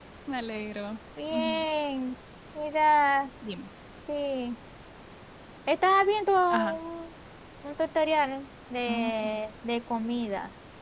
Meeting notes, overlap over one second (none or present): none